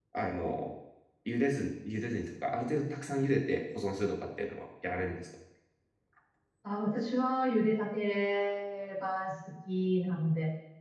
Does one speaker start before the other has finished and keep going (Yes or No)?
No